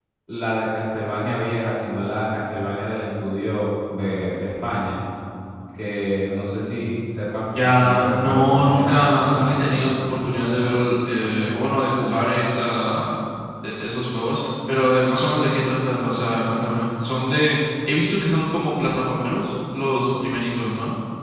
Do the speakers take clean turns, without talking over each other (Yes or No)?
No